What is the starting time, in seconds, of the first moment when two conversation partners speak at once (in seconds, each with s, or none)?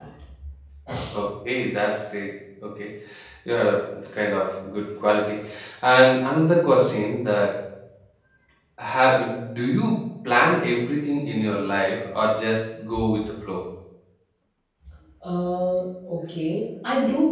none